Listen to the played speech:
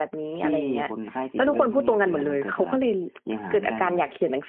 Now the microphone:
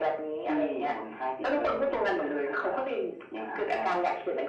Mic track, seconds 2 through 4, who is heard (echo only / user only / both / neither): echo only